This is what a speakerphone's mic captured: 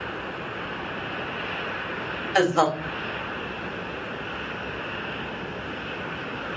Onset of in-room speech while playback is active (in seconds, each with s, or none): 2.3 s